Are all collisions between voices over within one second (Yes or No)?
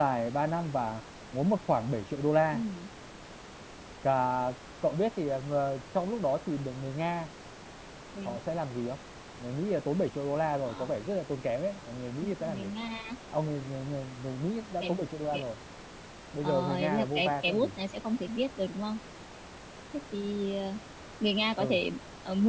No